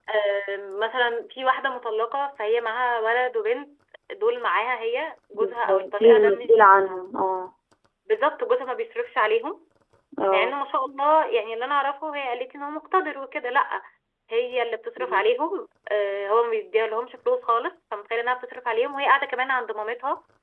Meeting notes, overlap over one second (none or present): present